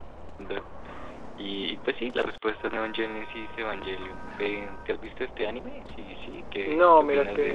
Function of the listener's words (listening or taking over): taking over